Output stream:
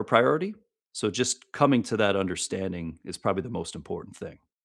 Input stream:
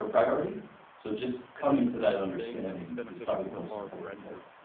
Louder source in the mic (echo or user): echo